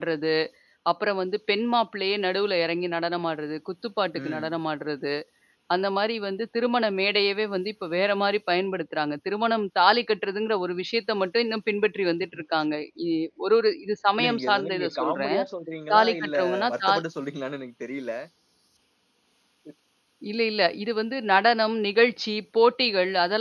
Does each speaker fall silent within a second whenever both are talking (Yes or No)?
No